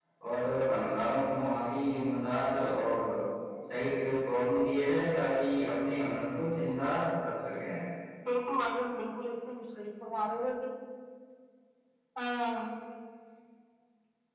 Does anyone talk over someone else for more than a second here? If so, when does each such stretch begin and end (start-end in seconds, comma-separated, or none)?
none